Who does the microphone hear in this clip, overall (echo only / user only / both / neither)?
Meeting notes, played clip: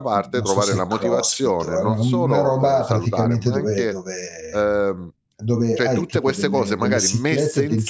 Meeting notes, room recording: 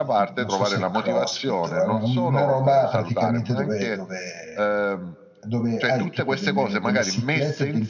echo only